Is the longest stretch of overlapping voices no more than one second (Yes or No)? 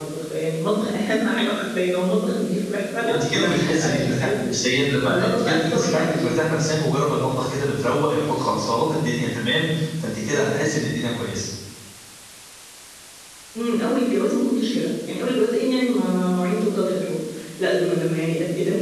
No